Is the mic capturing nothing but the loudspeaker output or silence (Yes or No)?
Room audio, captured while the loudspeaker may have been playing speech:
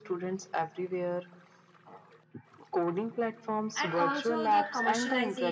No